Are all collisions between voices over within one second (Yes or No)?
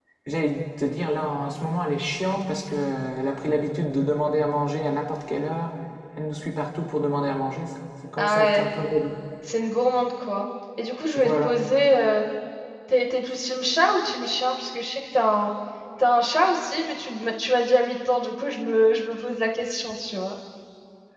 Yes